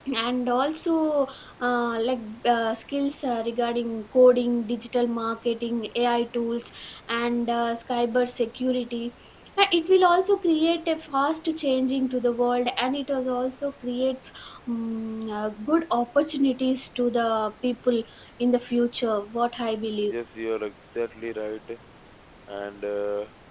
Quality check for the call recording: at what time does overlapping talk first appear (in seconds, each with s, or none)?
none